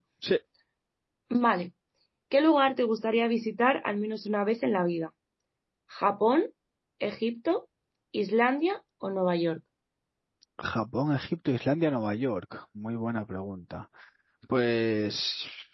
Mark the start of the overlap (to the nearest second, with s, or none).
none